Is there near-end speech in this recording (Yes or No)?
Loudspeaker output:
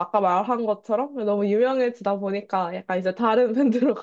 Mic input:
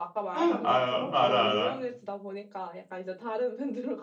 Yes